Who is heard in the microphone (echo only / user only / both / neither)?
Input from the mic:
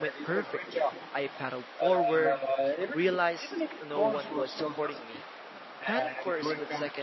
both